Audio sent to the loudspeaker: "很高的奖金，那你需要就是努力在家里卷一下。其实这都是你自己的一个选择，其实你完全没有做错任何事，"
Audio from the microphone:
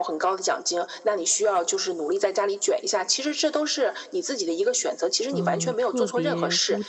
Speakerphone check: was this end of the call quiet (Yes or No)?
No